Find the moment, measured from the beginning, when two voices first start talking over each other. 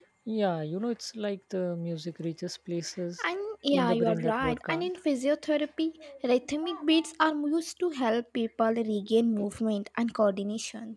3.7 s

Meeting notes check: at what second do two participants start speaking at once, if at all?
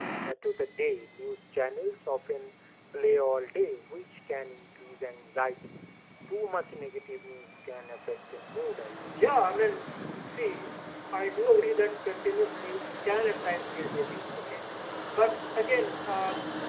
none

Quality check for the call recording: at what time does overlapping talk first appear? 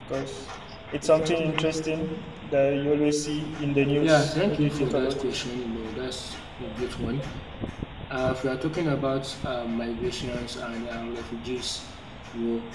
4.0 s

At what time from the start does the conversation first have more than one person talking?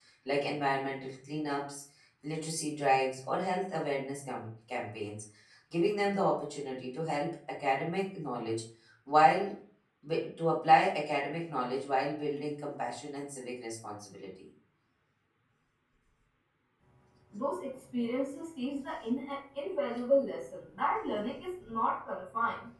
none

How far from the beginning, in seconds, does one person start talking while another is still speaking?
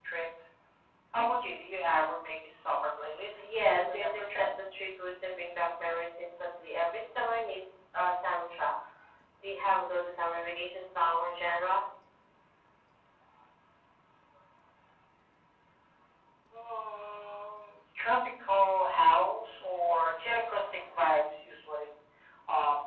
3.3 s

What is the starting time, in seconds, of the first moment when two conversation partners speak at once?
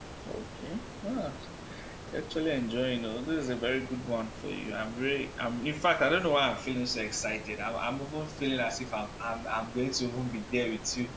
none

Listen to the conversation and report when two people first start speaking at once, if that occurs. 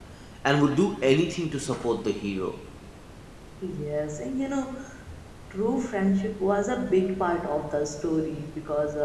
none

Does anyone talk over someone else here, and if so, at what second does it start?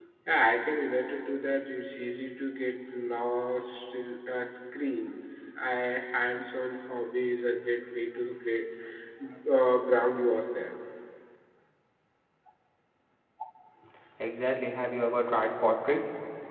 none

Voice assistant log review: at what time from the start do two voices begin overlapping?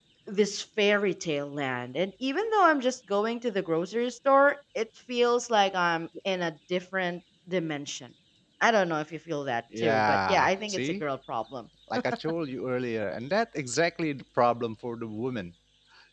9.7 s

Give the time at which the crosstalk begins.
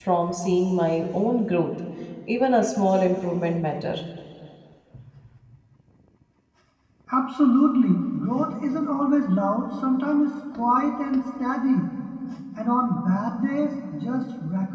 none

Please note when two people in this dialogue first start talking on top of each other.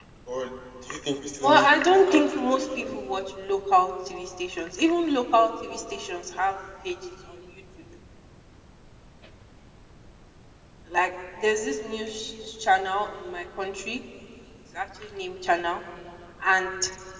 1.4 s

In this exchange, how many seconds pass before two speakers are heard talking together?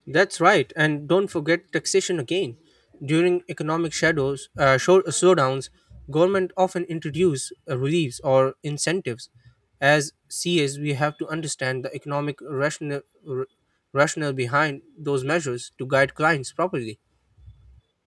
none

